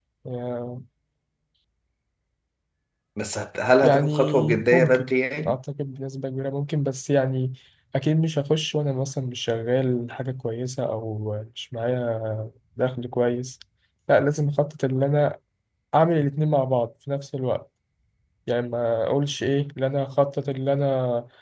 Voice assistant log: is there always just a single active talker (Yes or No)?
No